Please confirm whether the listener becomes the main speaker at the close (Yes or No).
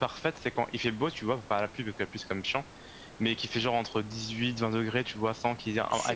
No